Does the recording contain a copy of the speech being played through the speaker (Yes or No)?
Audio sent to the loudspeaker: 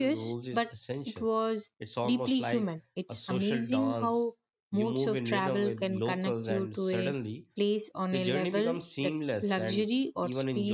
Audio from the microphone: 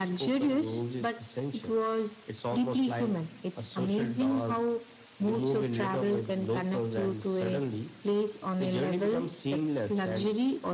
Yes